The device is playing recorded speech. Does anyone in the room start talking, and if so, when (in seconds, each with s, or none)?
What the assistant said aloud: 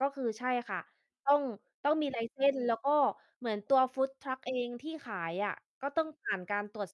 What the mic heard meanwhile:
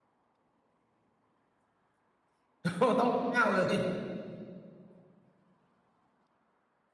2.6 s